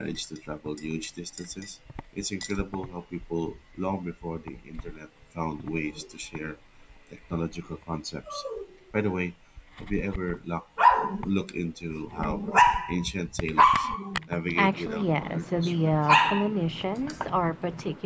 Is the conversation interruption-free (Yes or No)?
No